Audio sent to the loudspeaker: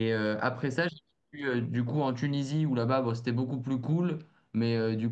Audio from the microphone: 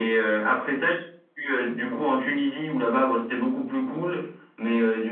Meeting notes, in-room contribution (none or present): none